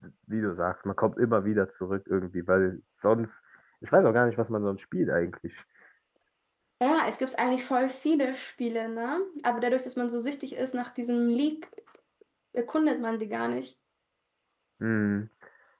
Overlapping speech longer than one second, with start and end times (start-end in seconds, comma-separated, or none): none